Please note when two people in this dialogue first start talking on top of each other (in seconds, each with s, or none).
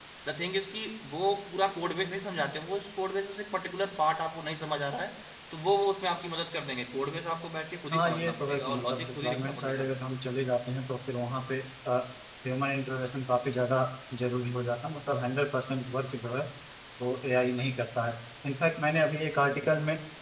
7.9 s